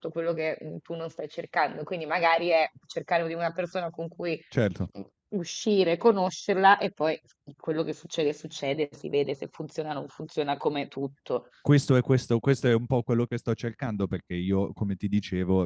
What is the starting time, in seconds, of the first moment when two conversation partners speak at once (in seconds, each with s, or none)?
none